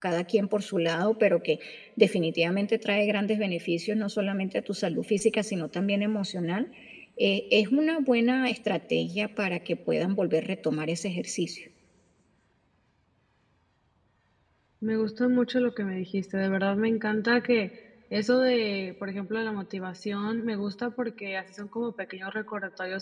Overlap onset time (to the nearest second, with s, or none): none